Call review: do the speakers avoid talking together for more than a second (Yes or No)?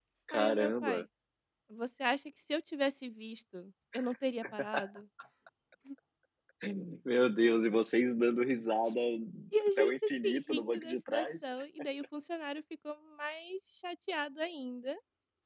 No